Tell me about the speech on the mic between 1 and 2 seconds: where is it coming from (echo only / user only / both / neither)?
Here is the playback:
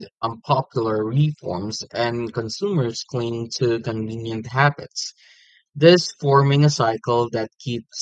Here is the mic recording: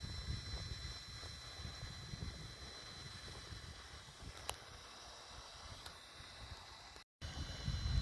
neither